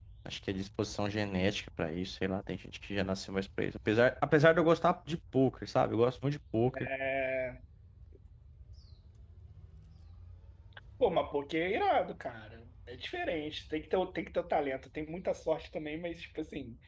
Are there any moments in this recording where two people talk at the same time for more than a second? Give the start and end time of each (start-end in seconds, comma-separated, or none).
none